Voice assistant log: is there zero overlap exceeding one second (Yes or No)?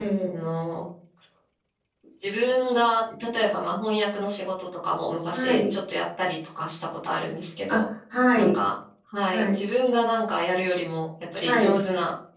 Yes